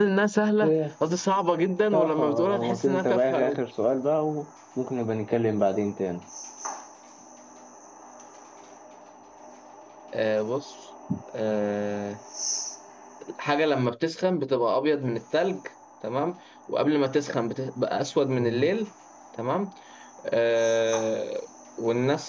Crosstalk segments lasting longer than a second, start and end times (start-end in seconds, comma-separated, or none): 1.9-3.6